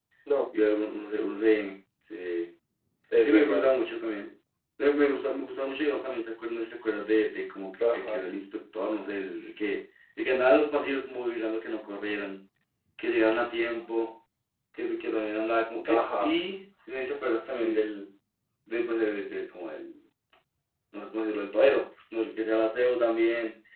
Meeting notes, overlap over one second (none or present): none